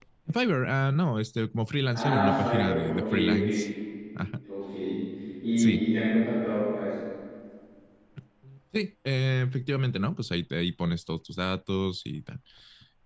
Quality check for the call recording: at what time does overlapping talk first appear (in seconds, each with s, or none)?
1.9 s